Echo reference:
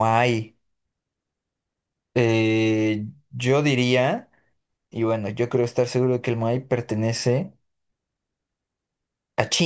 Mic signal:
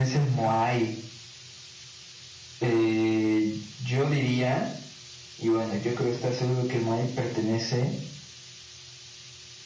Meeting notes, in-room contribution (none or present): none